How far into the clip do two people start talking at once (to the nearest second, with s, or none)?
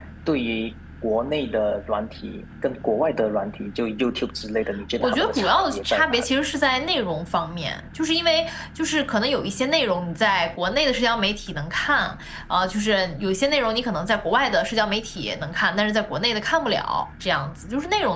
5 s